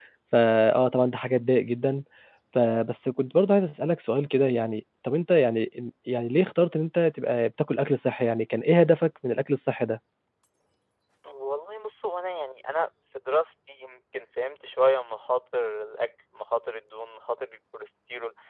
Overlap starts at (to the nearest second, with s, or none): none